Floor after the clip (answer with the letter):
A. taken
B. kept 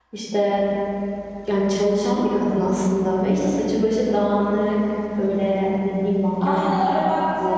A